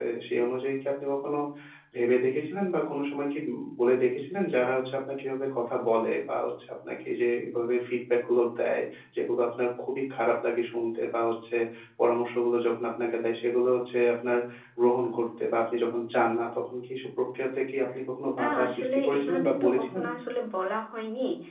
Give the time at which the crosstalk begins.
18.2 s

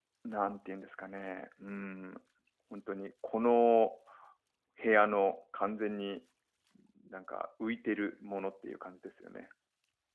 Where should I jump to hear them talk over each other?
none

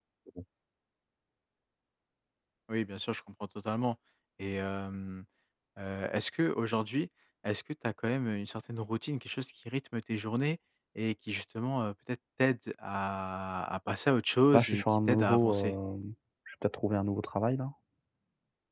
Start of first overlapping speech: 14.5 s

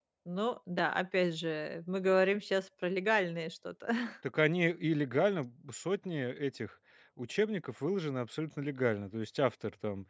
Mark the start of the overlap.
none

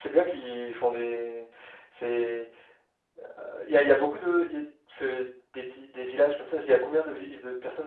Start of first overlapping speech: none

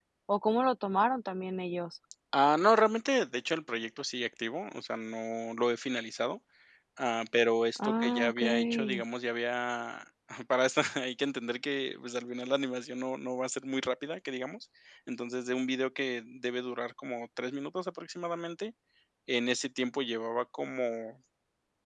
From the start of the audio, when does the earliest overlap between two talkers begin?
7.8 s

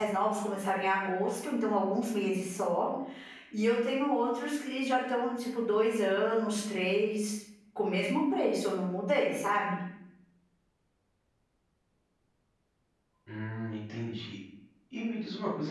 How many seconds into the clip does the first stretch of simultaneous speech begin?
none

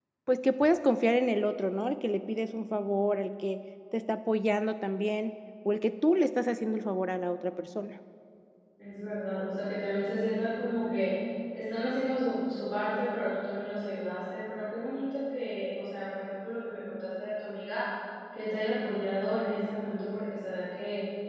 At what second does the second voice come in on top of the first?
none

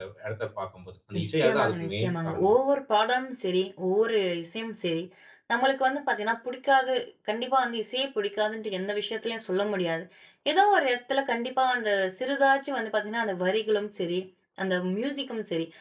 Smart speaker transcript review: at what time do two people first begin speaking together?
1.2 s

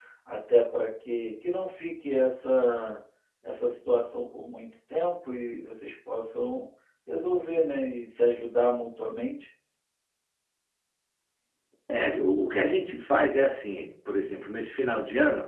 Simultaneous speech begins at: none

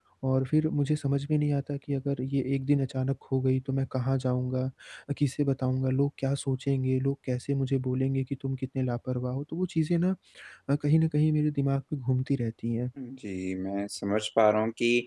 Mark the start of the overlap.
none

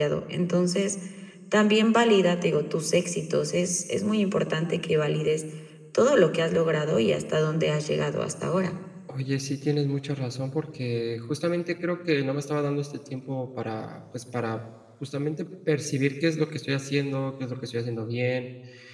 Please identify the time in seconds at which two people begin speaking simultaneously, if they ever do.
none

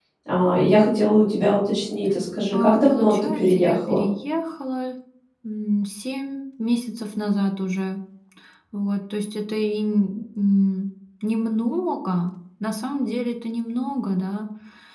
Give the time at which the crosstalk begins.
2.5 s

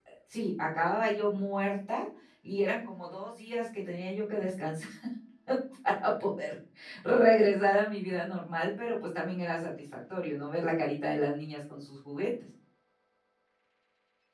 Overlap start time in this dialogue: none

